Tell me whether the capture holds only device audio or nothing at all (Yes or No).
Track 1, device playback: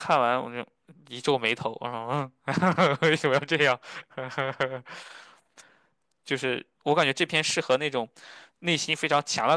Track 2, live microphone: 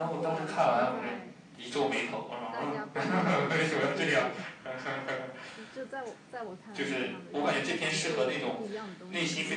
No